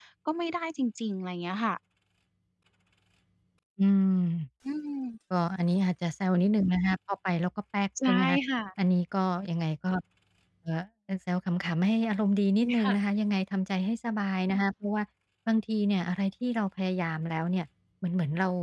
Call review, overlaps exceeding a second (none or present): none